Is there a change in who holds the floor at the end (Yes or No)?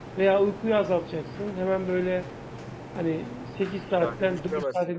No